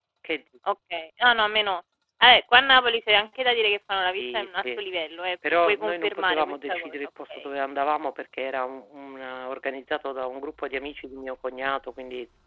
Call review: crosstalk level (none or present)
present